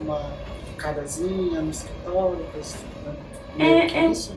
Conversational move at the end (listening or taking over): taking over